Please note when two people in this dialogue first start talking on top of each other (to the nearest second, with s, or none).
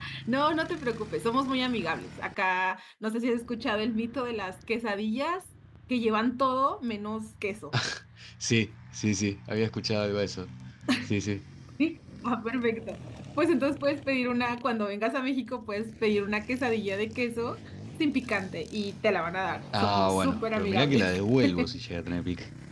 20 s